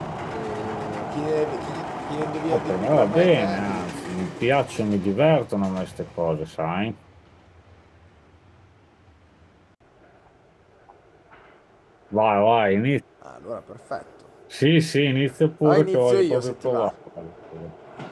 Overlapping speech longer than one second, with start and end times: 2.5-3.9, 15.6-16.9

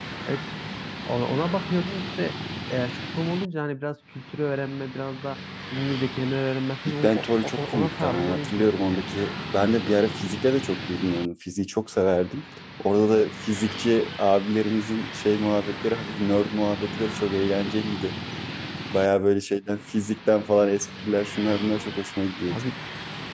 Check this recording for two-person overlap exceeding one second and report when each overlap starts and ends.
7.0-9.0

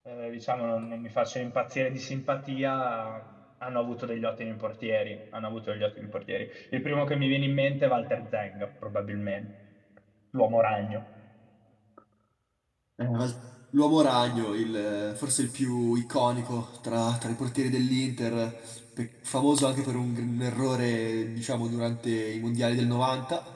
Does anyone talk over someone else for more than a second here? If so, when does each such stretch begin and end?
none

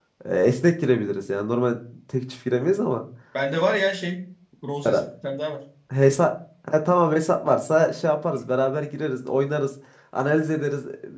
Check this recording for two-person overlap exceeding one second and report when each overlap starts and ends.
none

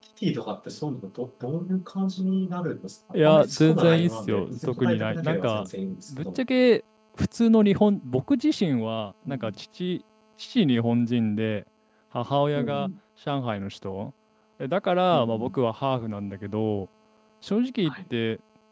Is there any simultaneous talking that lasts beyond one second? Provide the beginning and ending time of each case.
3.1-5.6

